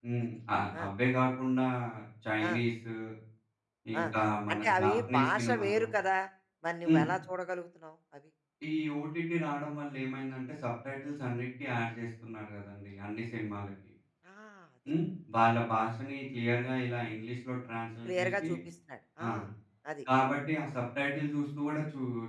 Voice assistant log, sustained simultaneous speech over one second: present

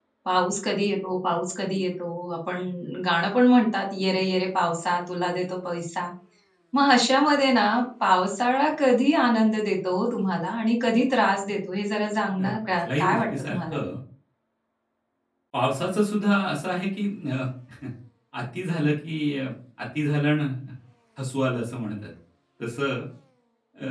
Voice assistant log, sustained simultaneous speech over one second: present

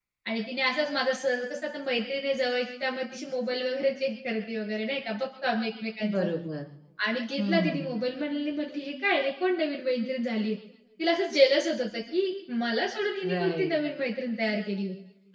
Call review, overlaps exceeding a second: none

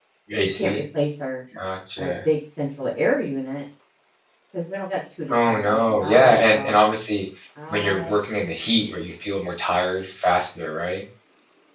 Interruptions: present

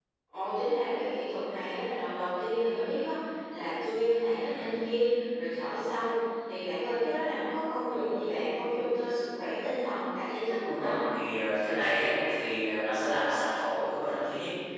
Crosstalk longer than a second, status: none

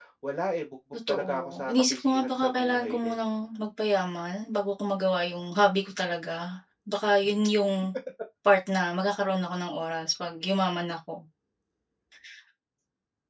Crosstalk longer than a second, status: present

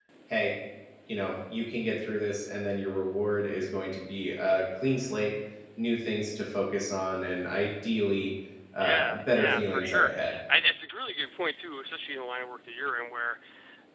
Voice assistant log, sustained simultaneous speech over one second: present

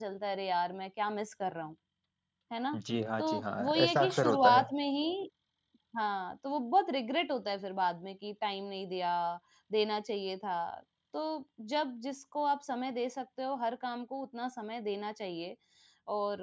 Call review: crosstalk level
present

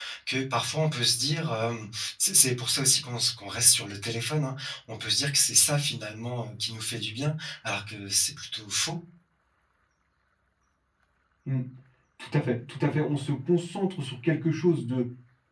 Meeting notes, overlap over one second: none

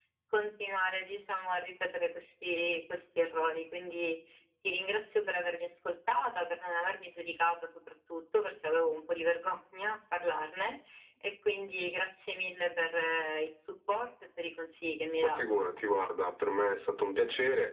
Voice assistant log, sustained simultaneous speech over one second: none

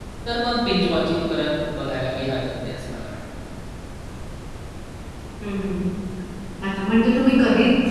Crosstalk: none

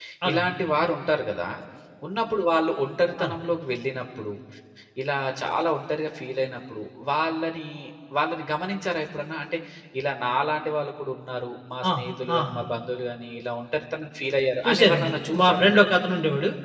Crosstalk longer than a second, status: present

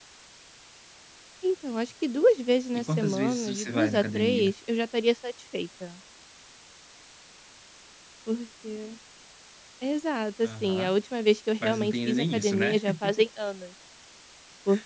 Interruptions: present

